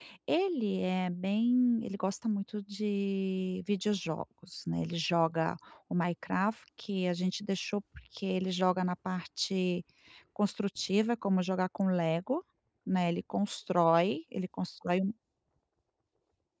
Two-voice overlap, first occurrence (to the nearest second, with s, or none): none